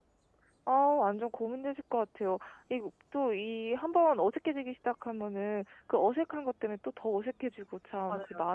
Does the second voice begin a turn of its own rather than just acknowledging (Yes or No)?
No